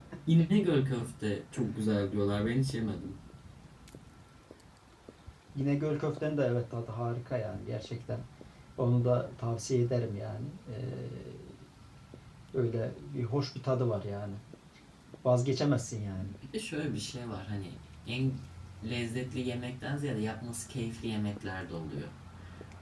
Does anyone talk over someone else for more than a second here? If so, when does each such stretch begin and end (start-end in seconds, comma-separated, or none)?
none